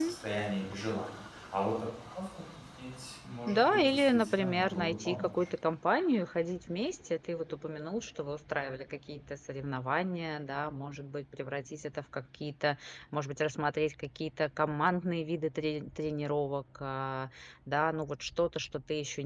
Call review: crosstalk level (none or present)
present